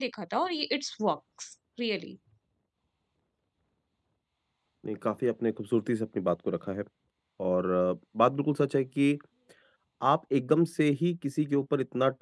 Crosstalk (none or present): none